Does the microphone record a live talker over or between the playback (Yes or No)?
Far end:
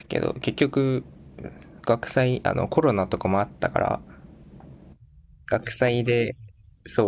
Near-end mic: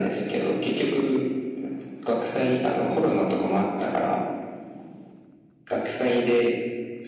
No